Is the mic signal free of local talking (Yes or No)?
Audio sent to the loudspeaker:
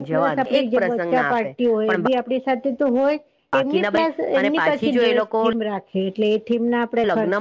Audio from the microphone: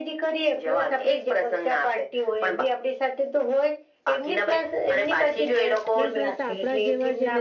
No